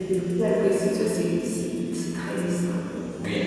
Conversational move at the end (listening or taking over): taking over